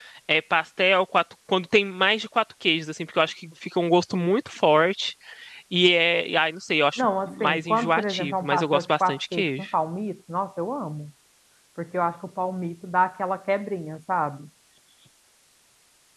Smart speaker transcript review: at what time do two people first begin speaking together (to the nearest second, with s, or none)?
7 s